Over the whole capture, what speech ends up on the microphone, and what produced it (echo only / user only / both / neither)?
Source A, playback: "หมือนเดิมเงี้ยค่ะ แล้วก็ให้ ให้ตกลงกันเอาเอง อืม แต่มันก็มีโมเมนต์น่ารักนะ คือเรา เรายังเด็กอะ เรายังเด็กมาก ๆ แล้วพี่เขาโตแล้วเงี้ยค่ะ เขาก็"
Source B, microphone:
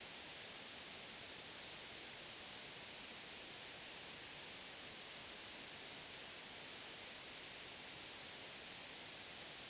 neither